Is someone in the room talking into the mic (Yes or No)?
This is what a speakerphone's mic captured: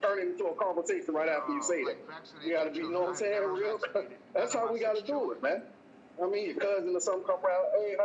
Yes